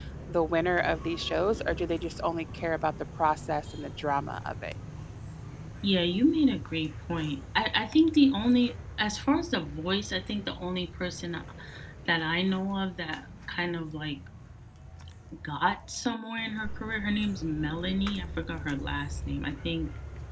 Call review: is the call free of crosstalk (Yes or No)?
Yes